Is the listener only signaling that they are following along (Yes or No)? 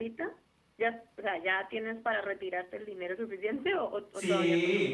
No